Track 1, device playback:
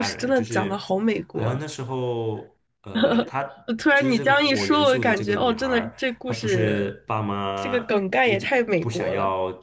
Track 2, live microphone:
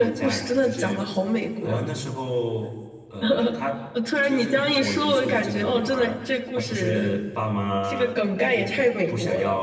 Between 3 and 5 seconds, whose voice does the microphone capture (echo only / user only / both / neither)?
echo only